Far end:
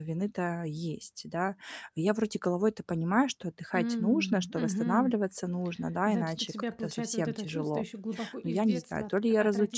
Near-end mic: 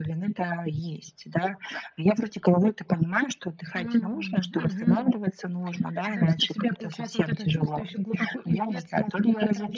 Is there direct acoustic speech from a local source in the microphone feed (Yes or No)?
No